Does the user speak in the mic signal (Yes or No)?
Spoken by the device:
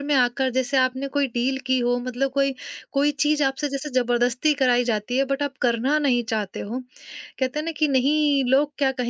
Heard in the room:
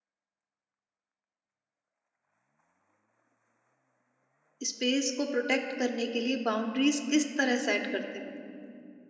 Yes